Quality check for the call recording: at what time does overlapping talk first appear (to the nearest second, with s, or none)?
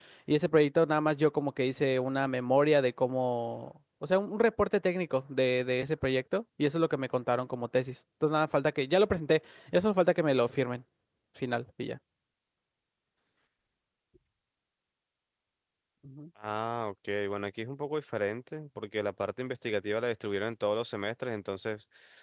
none